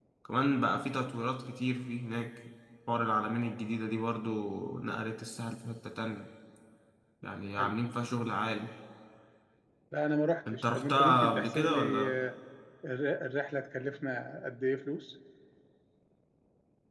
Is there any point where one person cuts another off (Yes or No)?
Yes